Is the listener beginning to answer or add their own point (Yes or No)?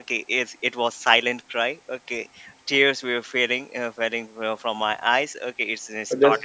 Yes